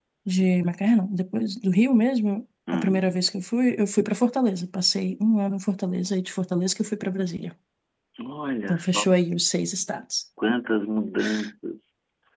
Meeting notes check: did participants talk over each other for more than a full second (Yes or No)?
No